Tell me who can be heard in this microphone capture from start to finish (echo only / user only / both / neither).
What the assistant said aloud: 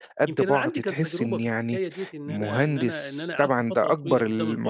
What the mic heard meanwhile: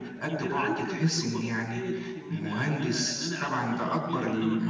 echo only